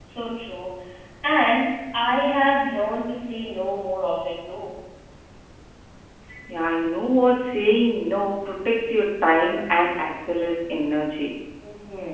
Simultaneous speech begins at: none

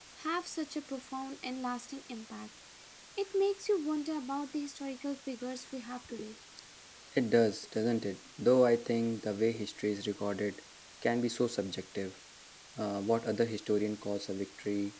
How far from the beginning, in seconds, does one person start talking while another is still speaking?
none

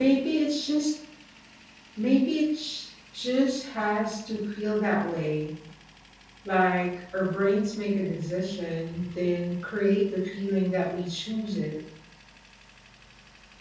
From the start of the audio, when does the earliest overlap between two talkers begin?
none

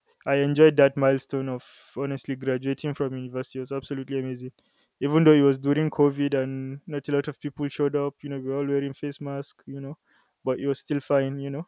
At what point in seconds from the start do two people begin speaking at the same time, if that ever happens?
none

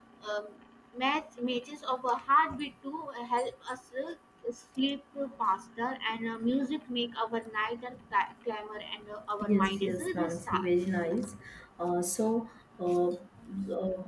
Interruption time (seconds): 9 s

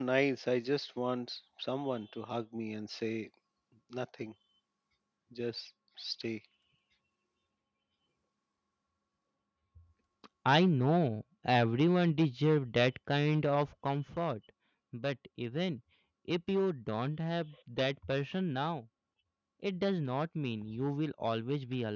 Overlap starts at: none

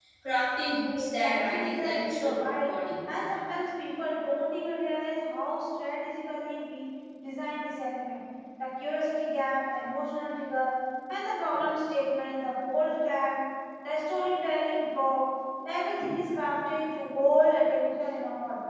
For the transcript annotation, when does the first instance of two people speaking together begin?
1 s

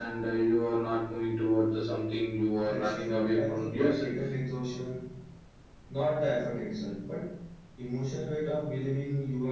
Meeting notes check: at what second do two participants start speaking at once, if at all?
3 s

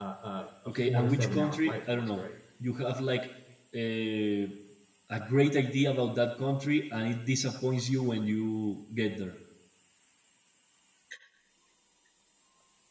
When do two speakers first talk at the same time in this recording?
1 s

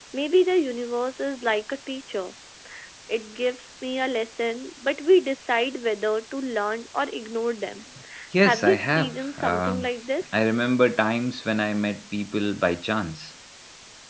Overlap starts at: 8 s

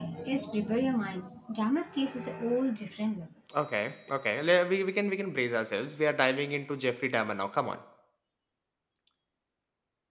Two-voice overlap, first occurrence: none

